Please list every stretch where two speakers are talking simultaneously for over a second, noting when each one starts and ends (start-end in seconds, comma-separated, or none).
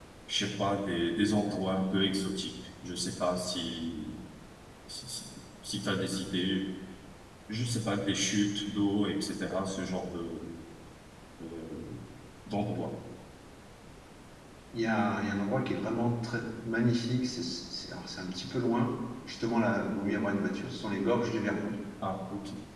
none